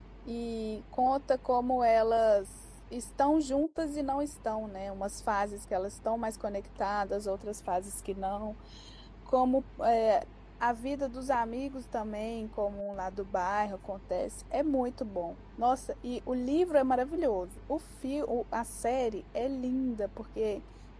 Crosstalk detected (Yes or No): No